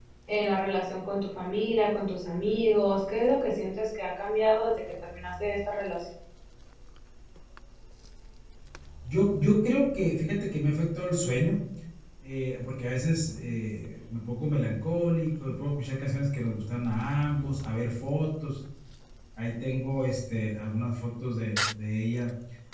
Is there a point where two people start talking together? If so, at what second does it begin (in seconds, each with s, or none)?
none